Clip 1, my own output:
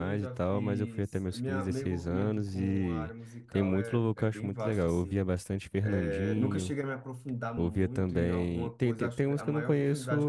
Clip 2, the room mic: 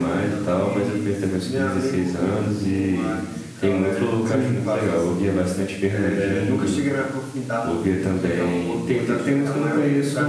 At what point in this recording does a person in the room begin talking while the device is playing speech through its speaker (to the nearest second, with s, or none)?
4 s